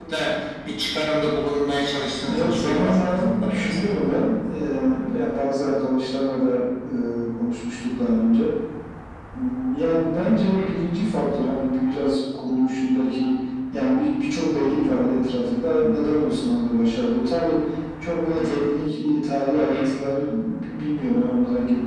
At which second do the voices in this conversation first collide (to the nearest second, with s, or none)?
2 s